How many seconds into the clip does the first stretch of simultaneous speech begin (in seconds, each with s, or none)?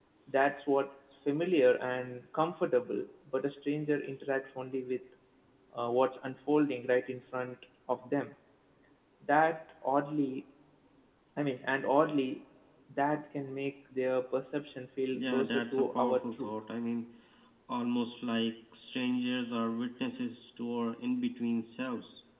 15.1 s